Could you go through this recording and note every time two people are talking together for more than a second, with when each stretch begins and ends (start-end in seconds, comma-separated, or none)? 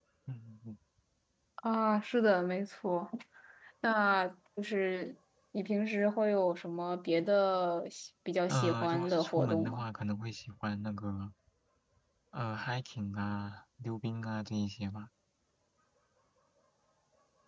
8.5-9.8